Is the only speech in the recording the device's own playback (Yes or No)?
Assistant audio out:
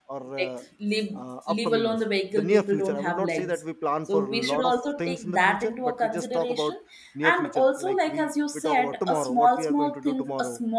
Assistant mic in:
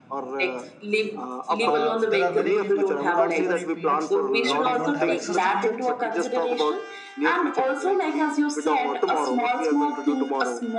No